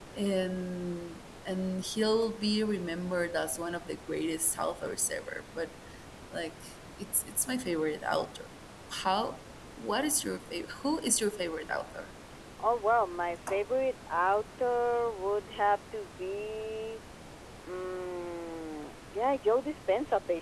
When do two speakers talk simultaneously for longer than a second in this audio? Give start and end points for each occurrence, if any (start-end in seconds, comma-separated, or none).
none